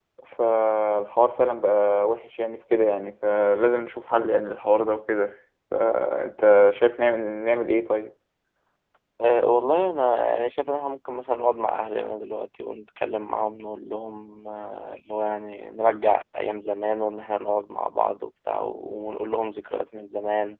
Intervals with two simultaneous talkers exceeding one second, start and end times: none

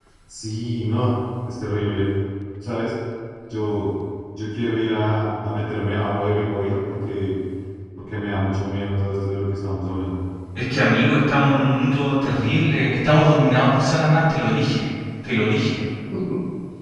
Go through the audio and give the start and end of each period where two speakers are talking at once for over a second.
none

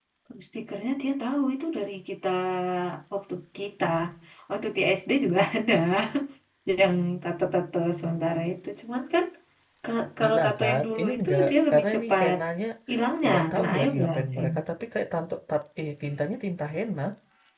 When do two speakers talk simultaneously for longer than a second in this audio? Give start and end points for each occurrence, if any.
10.2-12.4, 13.2-14.5

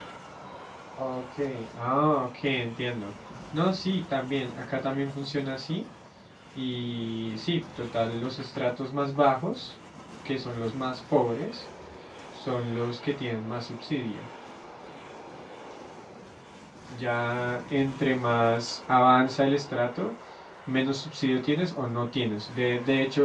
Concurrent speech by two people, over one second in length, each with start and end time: none

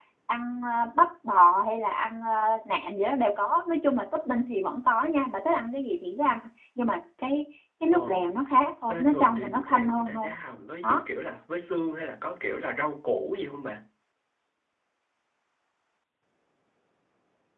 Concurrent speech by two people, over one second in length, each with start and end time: 8.9-10.3

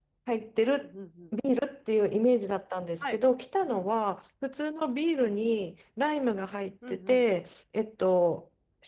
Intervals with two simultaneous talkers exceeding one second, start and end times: none

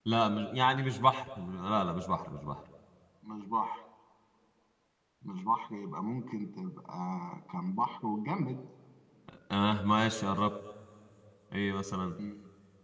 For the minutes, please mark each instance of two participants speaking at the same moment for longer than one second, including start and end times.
none

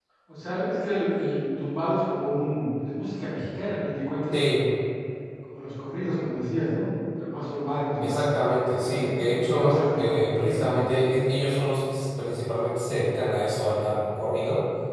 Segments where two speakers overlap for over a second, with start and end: 8.8-10.8

